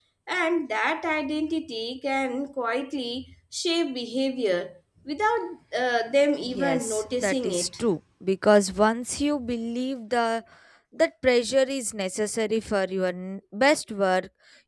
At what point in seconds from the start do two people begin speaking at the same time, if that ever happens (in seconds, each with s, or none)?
6.4 s